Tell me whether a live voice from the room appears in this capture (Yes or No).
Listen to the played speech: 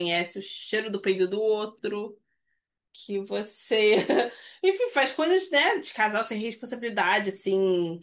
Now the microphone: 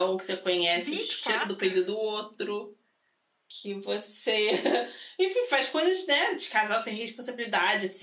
Yes